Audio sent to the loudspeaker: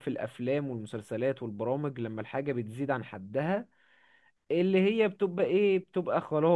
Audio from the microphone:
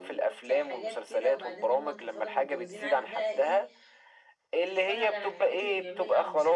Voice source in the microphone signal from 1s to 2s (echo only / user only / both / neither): both